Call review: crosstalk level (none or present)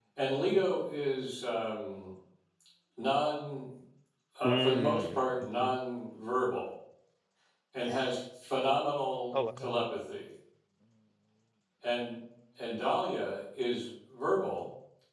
present